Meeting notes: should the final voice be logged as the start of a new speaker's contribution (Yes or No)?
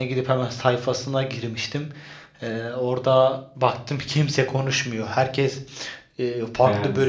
No